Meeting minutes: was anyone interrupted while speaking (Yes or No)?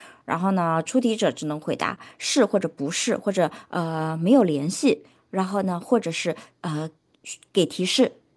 No